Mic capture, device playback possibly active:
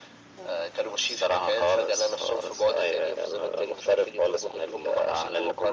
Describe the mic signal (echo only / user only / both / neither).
echo only